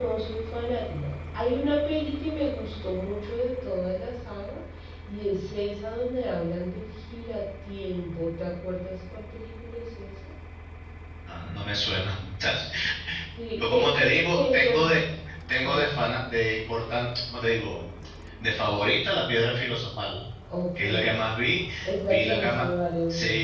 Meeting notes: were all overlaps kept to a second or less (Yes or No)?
No